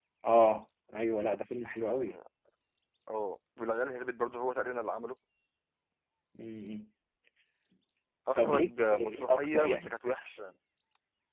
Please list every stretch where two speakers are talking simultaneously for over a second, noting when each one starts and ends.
8.4-9.9

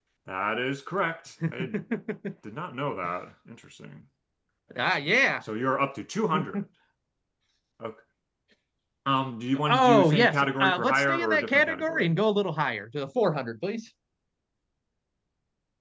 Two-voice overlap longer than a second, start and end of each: 9.7-12.1

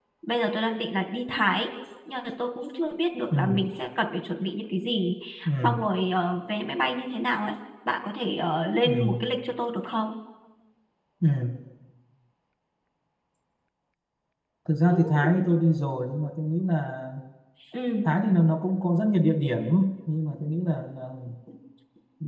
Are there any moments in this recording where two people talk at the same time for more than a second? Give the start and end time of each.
none

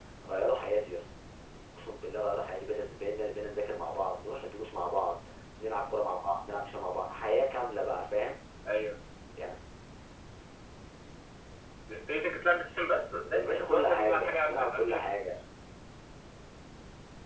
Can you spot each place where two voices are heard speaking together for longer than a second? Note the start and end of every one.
13.3-15.4

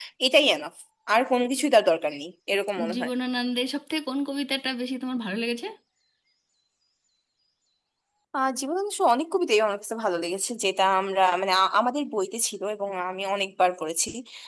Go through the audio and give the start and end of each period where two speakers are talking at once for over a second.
none

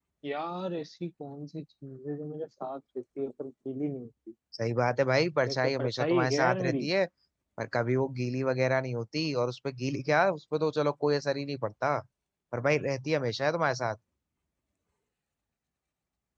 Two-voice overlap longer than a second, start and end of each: 5.5-6.9

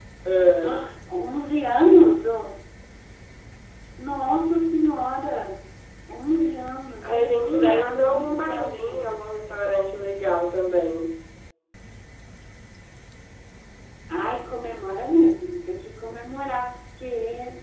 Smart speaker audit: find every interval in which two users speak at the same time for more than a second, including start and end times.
7.0-9.1

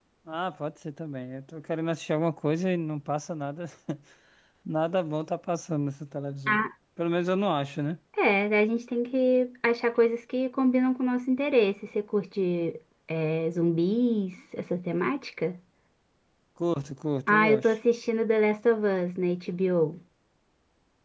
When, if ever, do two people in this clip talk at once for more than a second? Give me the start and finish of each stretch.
none

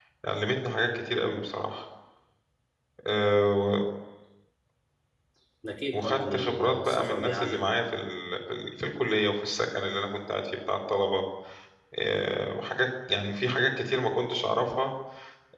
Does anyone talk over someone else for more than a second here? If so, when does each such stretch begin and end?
5.9-7.9

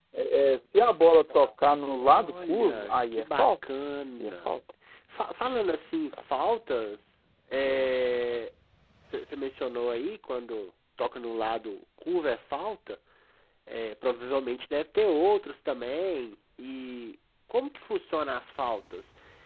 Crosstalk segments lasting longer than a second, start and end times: 2.0-3.5

